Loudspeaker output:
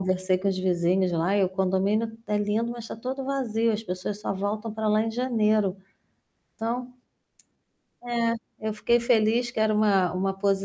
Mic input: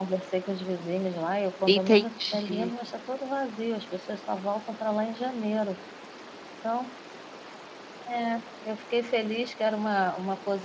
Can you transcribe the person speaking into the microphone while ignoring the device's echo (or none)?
entendi.